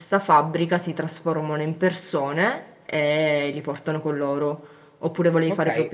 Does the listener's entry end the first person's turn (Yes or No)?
Yes